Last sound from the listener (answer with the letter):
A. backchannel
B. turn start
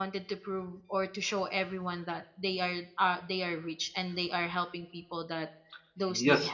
B